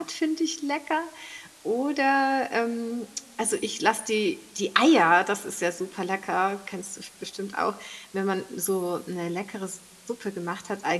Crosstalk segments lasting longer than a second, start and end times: none

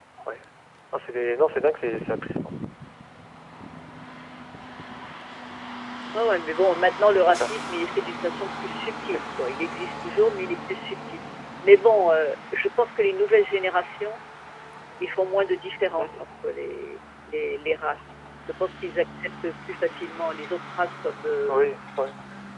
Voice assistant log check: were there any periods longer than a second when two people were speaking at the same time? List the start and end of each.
none

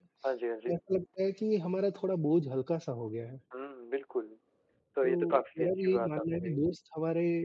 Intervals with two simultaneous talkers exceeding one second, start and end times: 5.0-6.6

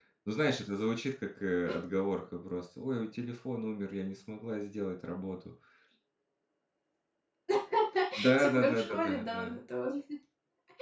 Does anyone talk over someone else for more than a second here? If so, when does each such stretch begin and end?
8.4-9.6

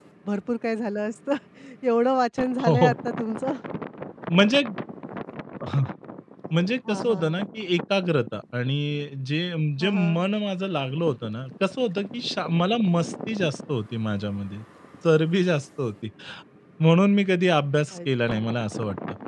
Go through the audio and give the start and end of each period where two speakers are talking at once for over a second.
none

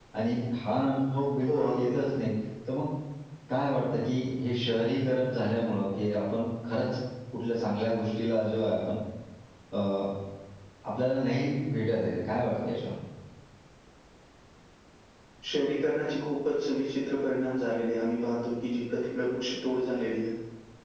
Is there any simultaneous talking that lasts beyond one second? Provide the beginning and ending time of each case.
none

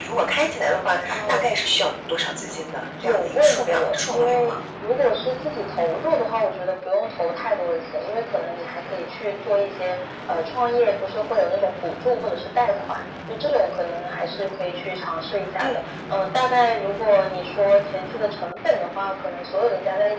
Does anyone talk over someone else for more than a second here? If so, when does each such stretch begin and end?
3.0-4.5

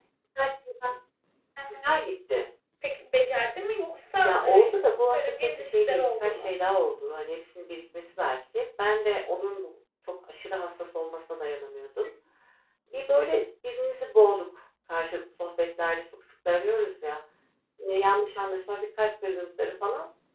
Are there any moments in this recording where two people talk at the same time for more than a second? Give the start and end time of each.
4.2-6.5

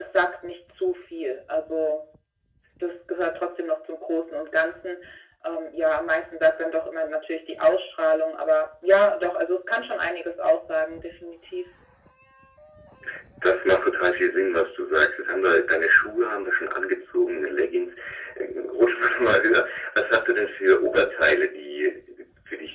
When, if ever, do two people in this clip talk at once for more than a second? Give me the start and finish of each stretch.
none

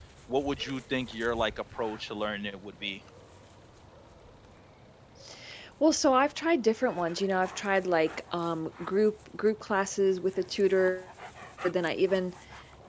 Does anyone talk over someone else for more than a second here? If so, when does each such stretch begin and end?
none

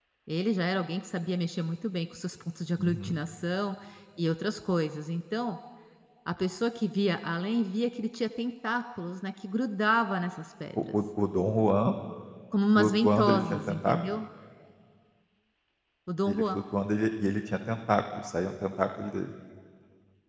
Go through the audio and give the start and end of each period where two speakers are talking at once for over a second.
12.8-14.0

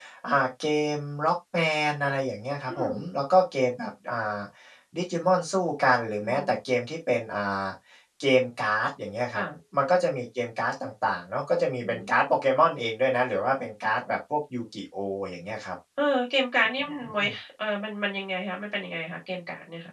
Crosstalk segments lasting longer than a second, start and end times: none

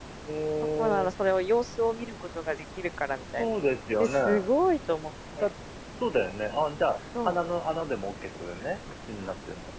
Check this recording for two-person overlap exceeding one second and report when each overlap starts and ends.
none

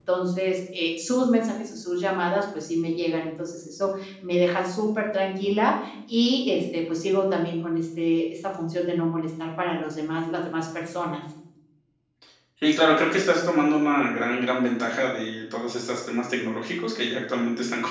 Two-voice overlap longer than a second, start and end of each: none

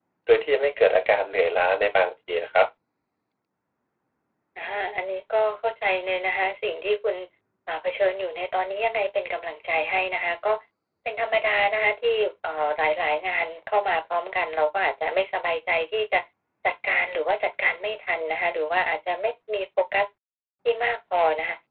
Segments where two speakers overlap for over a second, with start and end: none

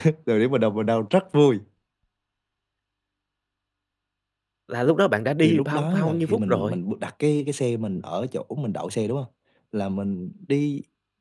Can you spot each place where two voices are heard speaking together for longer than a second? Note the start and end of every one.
5.4-6.8

